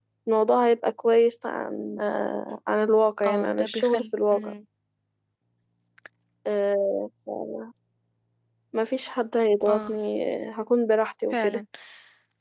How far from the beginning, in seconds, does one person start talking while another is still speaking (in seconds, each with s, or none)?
3.3 s